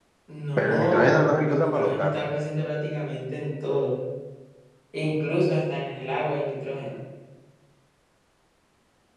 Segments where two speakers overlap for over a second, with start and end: 0.6-2.2

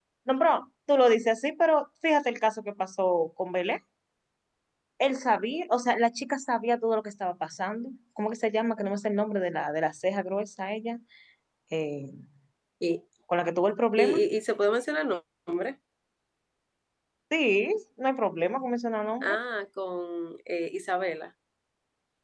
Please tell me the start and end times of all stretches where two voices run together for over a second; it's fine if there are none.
none

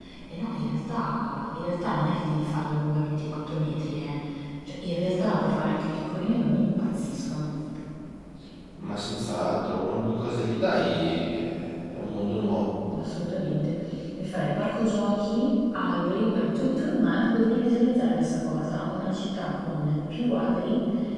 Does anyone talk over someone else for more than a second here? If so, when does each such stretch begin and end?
none

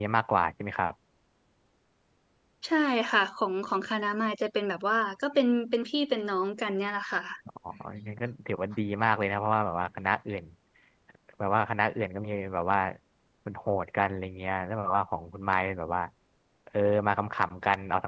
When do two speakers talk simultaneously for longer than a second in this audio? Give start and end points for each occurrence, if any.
none

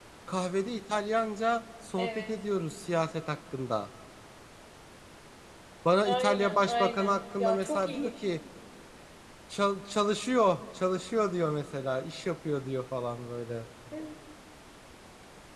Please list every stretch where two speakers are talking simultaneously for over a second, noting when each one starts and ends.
6.0-8.1

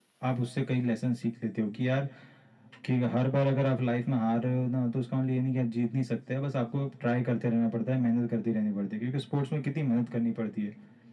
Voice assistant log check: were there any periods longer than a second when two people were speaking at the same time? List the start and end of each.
none

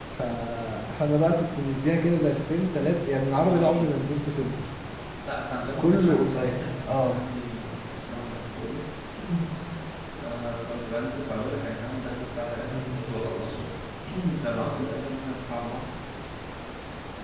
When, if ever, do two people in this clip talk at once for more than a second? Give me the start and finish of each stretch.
5.8-7.2

